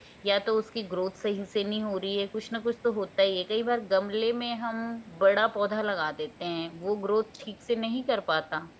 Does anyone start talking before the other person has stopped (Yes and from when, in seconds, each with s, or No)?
No